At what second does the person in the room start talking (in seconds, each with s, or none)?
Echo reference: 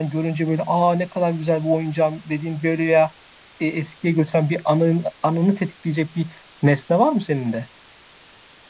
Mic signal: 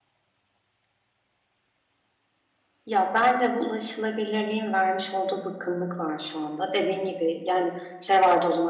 2.8 s